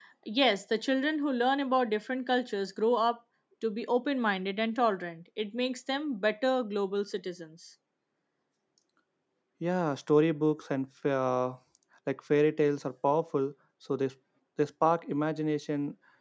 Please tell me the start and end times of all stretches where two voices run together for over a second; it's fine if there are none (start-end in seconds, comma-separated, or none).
none